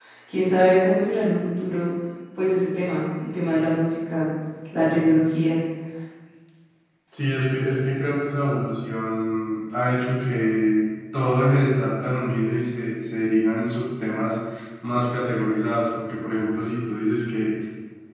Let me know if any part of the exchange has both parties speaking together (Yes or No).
No